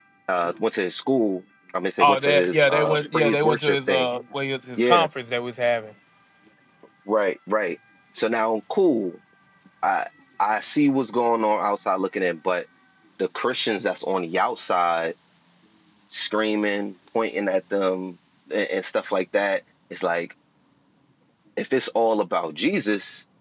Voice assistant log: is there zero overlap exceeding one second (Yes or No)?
No